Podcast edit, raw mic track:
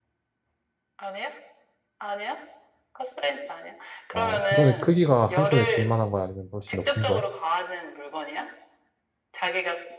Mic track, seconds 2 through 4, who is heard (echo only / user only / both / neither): echo only